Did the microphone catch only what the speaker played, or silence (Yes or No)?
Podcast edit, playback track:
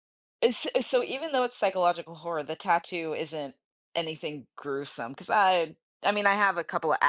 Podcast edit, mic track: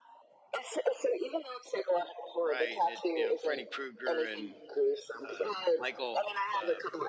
No